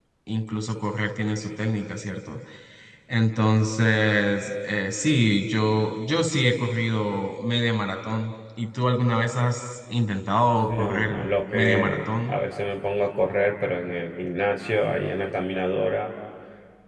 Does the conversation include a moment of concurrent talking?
Yes, from 10.7 s

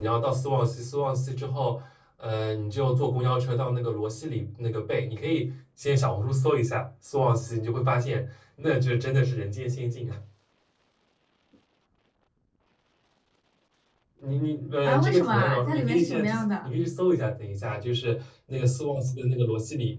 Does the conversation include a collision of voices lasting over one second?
Yes, from 14.8 s

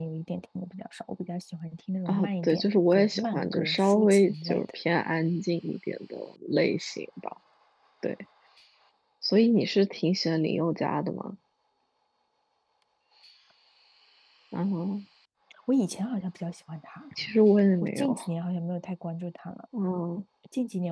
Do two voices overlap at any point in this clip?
Yes, from 2.1 s

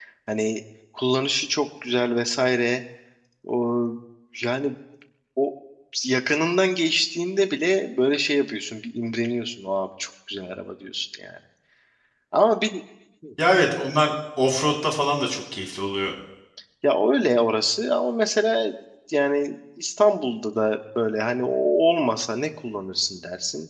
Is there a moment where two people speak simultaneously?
No

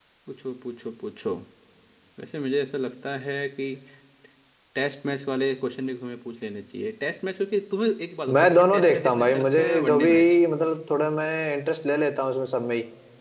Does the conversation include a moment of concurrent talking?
Yes, from 8.3 s

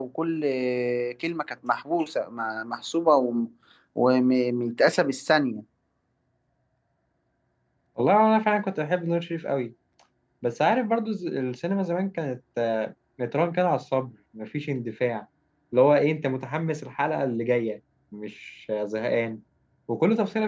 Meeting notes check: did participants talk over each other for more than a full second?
No

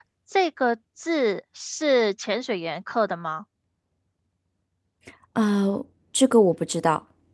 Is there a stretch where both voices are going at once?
No

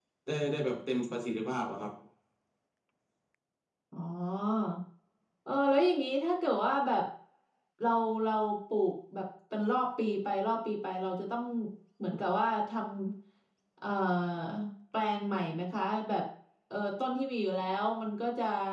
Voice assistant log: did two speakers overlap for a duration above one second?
No

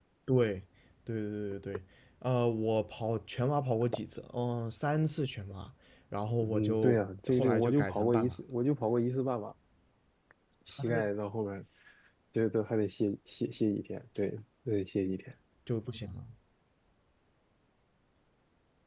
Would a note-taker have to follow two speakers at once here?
Yes, from 6.4 s

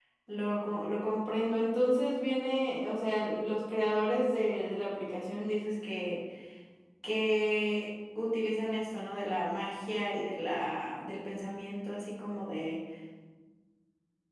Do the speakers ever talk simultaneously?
No

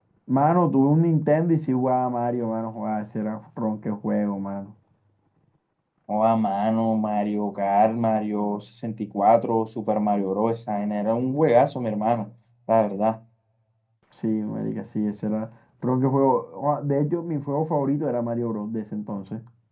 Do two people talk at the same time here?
No

